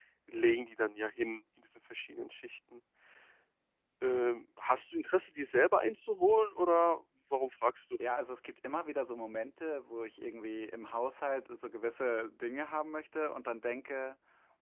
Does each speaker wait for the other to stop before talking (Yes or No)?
Yes